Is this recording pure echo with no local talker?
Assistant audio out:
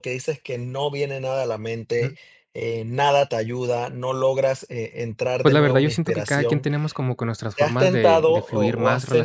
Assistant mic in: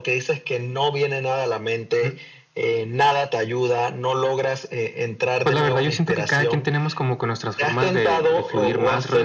Yes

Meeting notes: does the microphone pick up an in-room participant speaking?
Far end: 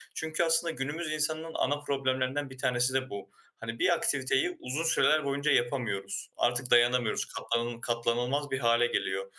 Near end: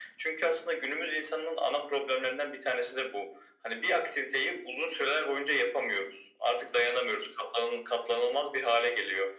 No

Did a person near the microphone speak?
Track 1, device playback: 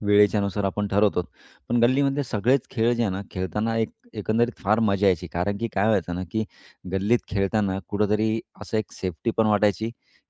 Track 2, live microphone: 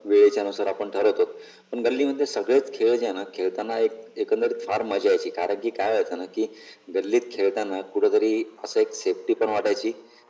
No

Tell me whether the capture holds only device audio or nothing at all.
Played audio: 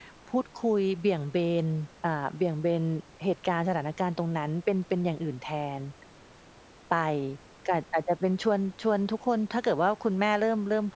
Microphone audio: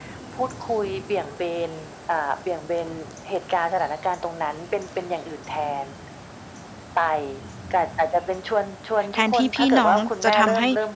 No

